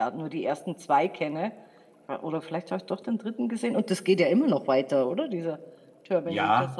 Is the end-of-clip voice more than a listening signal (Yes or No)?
Yes